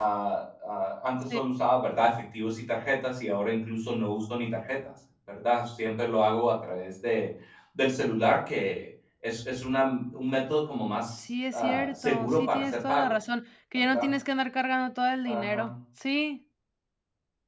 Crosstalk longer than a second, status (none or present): present